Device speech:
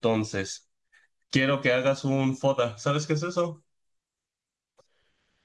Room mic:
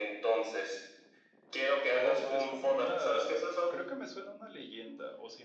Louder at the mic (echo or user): echo